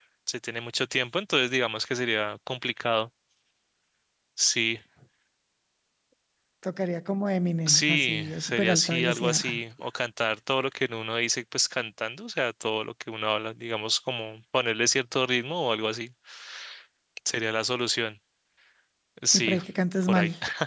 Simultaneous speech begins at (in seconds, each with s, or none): 7.7 s